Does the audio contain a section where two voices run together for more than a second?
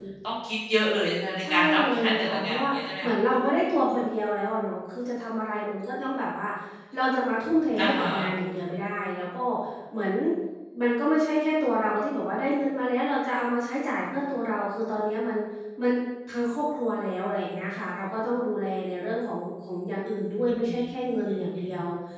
Yes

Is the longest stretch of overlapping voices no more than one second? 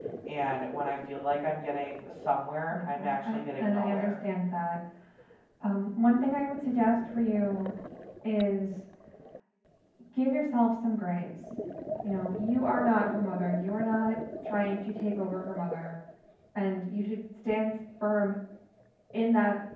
No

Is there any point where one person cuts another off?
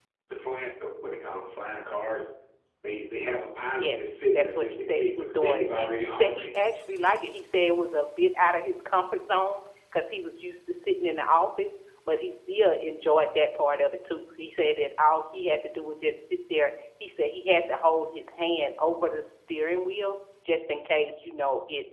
Yes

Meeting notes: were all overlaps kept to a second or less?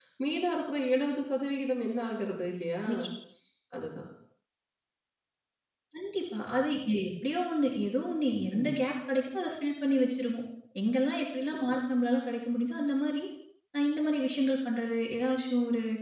Yes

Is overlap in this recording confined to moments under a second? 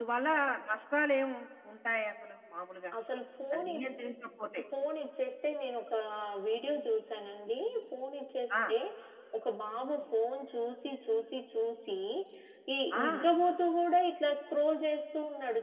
Yes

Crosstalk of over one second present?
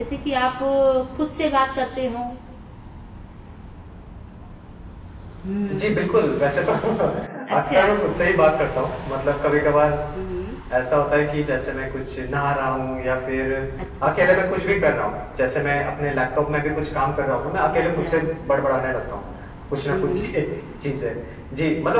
No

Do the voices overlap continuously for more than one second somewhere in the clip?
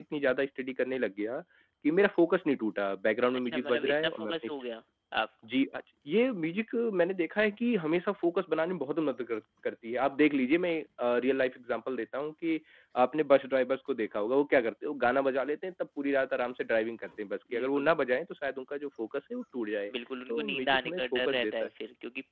Yes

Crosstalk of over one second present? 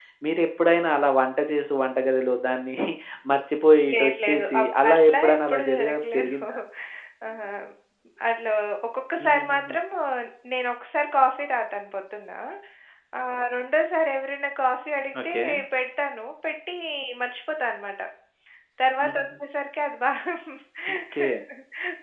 Yes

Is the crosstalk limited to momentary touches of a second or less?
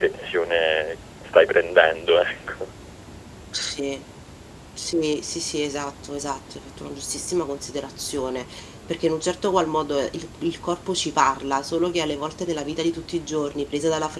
Yes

